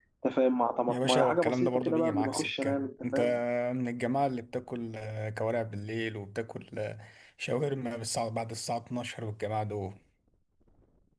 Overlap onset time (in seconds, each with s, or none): 0.9 s